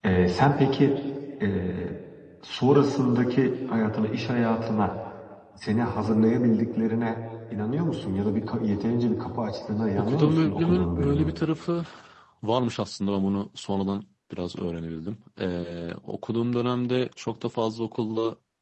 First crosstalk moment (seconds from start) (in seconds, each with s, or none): 9.9 s